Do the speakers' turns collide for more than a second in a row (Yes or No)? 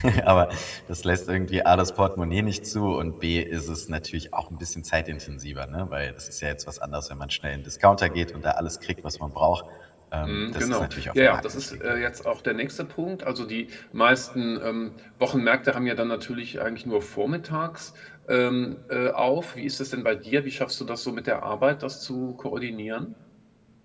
Yes